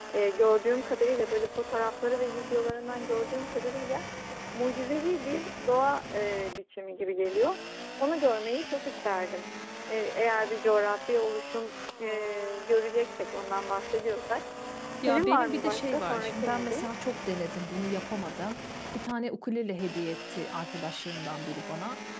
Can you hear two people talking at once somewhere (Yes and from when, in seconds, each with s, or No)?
Yes, from 15.0 s